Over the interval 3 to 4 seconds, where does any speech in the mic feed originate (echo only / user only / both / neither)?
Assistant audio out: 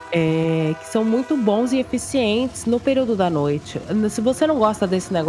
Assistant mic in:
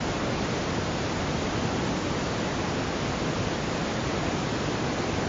neither